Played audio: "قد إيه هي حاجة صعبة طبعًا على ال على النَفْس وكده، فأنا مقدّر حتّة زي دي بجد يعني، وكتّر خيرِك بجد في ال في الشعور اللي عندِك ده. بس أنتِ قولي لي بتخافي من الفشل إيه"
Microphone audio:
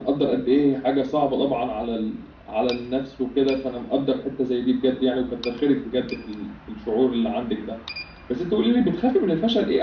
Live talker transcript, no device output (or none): none